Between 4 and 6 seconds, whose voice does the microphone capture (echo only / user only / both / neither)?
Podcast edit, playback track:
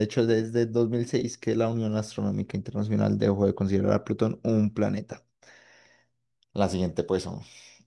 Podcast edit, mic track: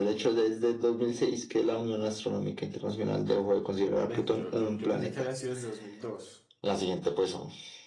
both